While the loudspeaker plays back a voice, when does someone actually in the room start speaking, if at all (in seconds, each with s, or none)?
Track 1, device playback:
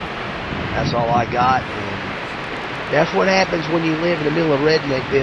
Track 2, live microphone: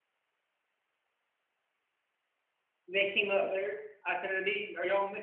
2.9 s